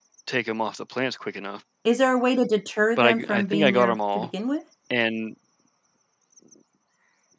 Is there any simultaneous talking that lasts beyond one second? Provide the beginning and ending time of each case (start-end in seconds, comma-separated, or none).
3.0-4.3